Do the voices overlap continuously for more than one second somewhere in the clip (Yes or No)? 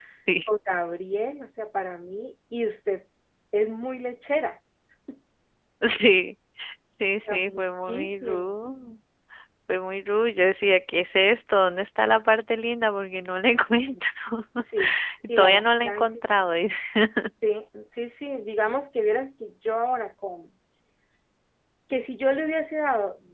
Yes